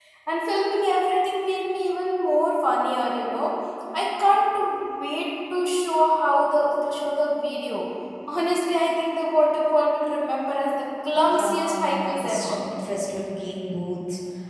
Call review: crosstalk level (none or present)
present